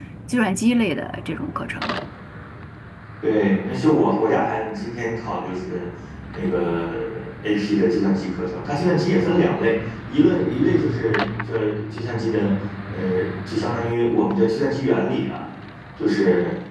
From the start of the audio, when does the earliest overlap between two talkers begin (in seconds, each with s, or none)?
none